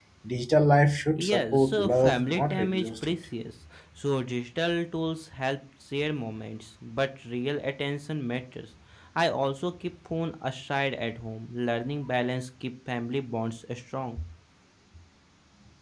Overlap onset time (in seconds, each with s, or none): 1.2 s